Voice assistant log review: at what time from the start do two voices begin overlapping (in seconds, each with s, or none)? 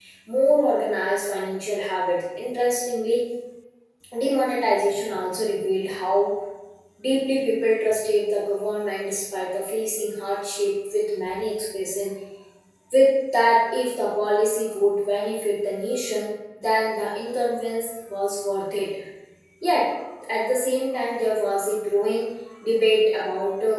none